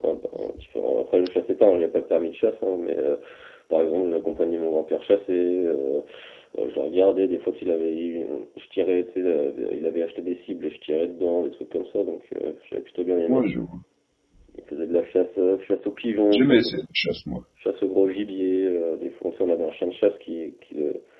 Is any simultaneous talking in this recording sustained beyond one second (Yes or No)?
No